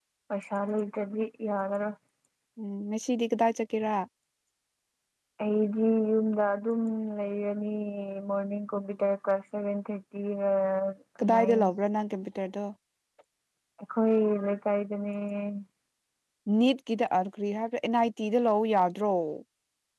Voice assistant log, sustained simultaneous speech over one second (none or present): none